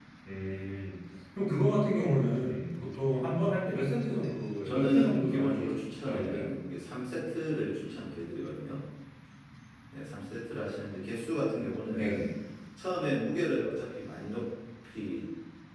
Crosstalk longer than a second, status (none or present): present